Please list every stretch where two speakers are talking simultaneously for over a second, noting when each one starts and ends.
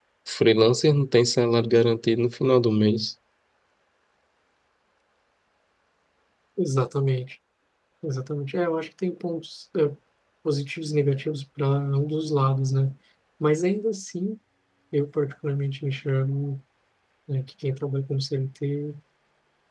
none

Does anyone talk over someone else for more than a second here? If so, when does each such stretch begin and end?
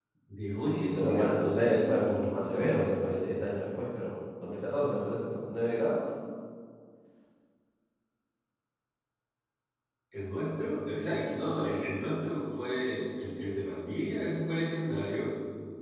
0.7-3.2

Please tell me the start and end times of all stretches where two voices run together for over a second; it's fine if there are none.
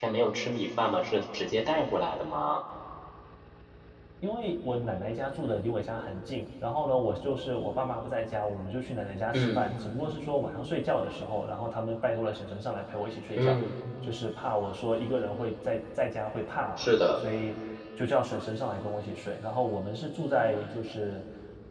none

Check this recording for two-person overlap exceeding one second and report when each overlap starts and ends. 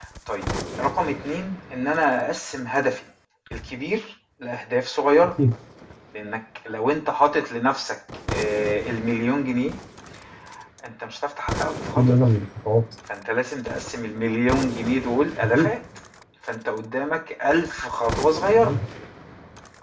none

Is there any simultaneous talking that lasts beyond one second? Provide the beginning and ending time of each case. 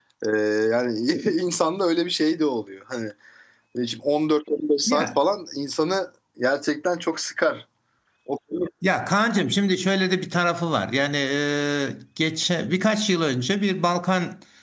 none

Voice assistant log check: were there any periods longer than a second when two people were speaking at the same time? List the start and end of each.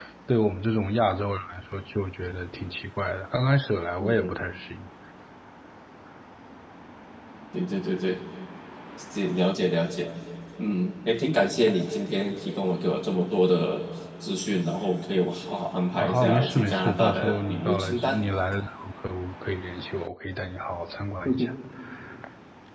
15.9-18.1

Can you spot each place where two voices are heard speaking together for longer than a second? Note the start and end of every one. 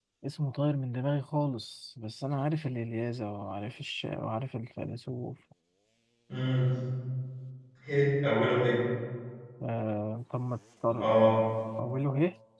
none

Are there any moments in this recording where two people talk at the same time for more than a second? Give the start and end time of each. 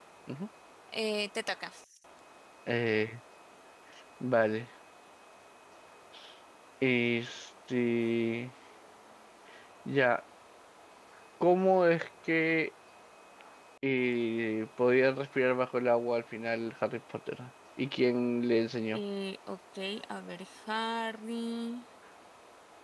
none

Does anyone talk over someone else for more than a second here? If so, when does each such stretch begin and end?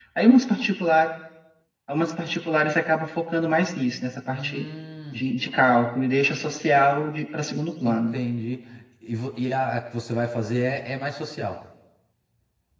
none

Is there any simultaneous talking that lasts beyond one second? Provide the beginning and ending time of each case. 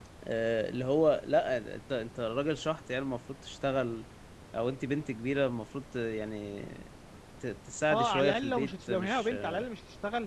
7.9-9.6

